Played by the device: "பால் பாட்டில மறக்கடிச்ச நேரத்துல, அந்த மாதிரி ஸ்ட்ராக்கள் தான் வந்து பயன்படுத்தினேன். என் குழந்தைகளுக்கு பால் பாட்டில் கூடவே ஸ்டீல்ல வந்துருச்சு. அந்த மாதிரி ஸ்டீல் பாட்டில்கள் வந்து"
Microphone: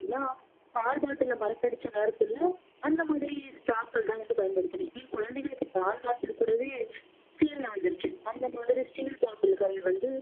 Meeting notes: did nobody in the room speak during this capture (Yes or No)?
Yes